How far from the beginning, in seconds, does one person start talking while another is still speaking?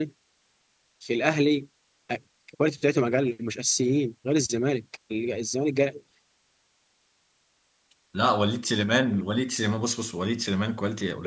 none

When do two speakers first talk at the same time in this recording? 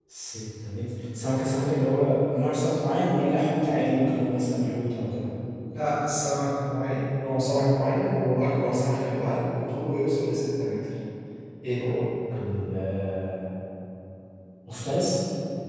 none

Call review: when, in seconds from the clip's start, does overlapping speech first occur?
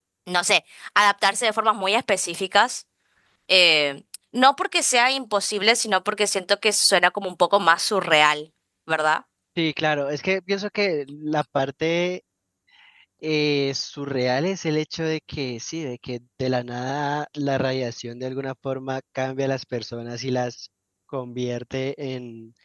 none

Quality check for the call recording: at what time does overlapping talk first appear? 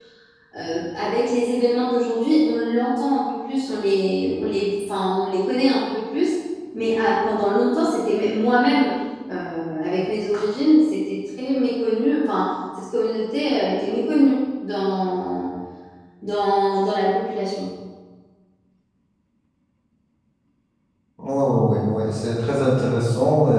none

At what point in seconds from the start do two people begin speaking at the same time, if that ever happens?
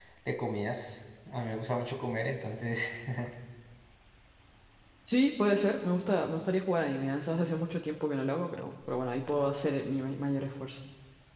none

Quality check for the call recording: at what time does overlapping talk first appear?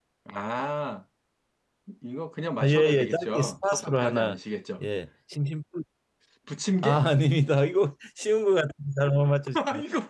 2.6 s

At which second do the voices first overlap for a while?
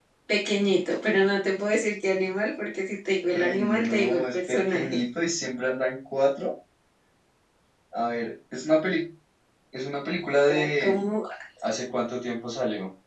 3.3 s

